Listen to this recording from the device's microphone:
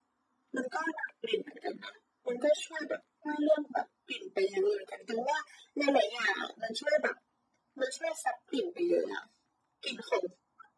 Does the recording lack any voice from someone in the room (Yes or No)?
Yes